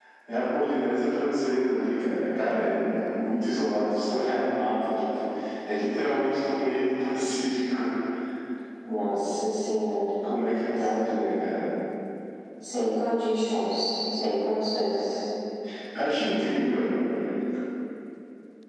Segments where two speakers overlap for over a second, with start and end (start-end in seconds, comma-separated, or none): none